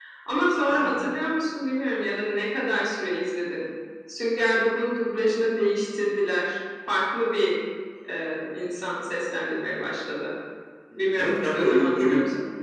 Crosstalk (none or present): present